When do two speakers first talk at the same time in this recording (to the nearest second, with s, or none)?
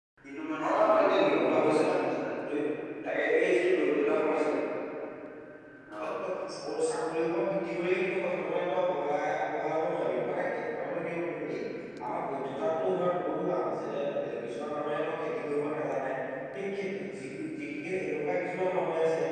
1 s